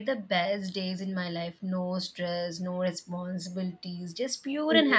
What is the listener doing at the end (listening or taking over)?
taking over